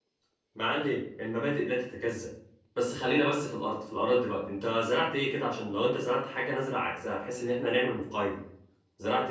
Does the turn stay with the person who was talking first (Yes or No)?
No